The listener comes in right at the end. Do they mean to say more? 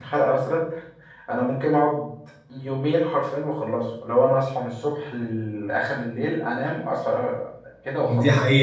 Yes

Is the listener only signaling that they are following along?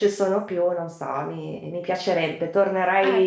Yes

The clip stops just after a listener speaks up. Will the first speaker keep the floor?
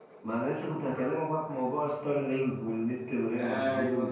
Yes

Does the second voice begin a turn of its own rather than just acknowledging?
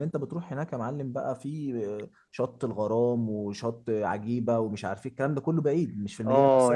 Yes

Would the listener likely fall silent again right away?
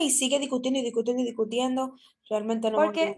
No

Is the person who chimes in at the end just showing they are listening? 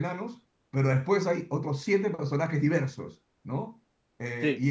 Yes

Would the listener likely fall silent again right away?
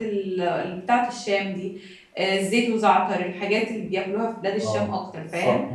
No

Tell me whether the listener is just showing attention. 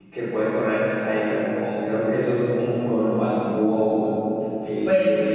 No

